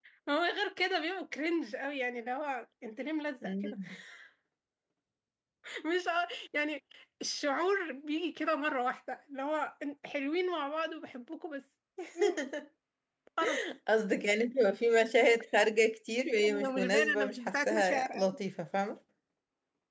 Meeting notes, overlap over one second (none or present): present